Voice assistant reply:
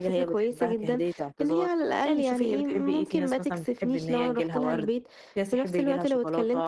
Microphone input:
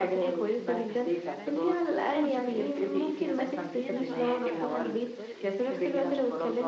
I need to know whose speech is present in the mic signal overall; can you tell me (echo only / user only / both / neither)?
both